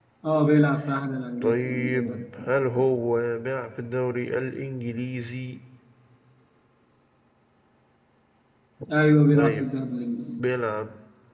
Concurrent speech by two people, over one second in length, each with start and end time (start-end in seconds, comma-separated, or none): 1.4-2.6